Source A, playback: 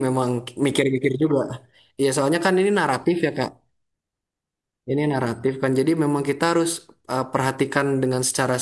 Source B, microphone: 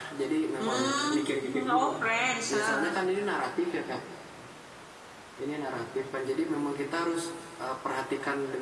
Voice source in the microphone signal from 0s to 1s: both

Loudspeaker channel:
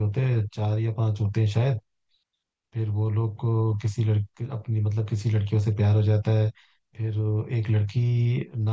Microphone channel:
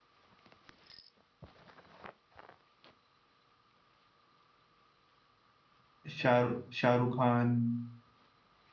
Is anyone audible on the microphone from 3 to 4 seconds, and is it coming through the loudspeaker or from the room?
neither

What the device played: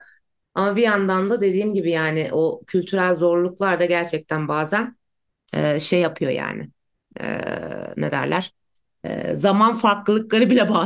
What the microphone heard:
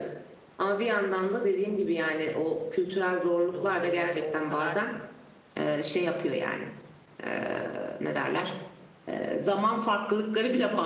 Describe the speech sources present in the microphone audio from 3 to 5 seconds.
both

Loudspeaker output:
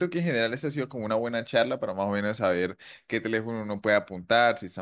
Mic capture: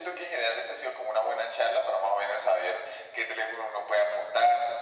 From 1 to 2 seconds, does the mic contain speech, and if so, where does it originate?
echo only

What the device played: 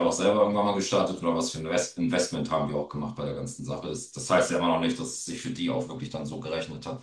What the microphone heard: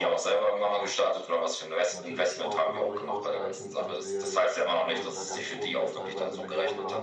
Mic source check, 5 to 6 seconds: both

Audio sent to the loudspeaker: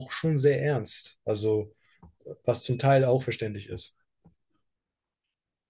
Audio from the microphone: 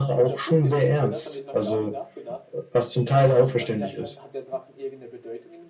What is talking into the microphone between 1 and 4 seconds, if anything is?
both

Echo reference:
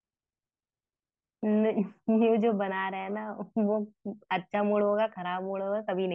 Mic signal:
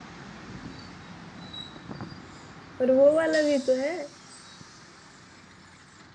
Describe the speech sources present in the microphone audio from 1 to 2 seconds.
neither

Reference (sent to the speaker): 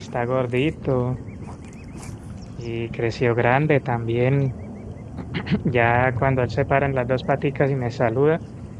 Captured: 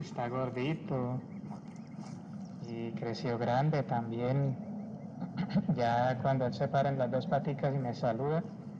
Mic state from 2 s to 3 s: echo only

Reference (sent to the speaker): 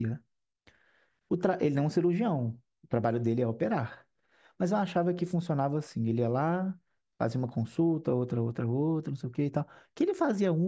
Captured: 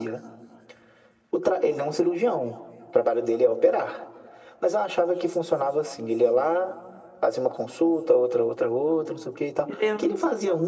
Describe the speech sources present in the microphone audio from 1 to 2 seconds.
echo only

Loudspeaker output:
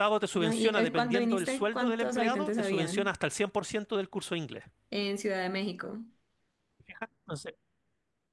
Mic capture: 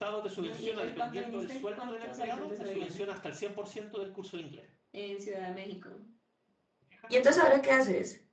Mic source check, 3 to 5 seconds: echo only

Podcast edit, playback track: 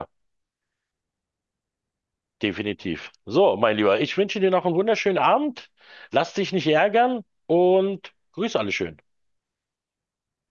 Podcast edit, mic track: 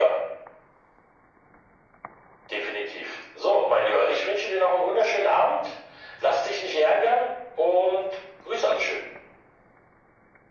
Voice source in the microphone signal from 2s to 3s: echo only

